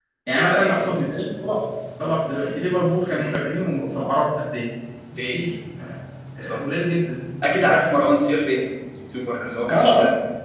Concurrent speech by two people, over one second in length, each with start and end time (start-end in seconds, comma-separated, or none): none